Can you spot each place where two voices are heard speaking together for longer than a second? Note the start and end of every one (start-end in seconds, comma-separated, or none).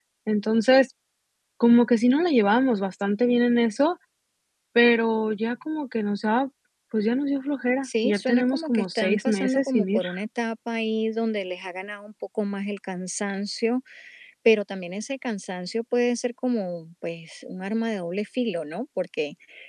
7.8-10.0